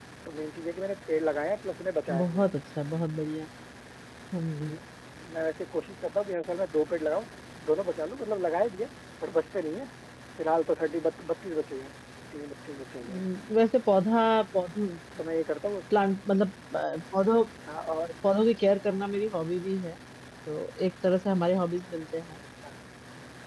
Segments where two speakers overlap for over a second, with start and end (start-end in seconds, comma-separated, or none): none